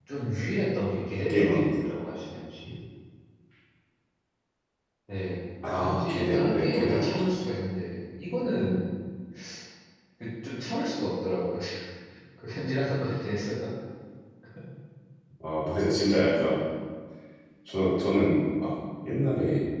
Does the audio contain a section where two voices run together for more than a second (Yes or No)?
Yes